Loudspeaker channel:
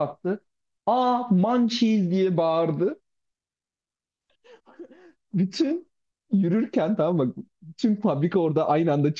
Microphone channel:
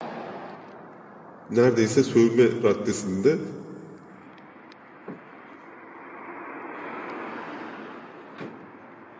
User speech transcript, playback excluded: neredeyse sövme raddesinde

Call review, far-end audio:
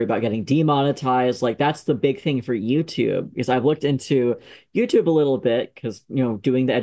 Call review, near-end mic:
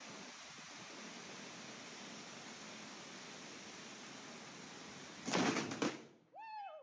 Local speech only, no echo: none

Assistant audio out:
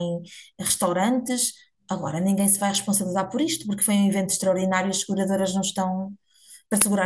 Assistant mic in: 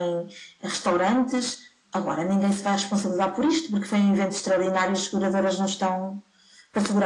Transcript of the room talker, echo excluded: none

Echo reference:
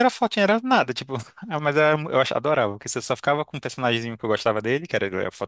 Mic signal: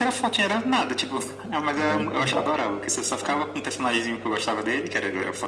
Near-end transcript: Muito bom. Ah,

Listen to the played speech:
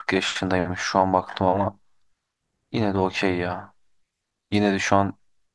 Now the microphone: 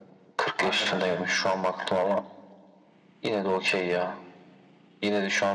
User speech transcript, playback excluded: Alperen Şengün'le.

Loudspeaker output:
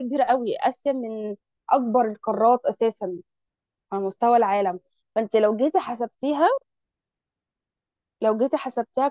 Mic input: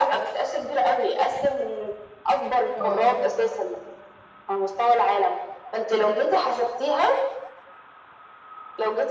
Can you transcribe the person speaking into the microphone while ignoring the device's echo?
اه

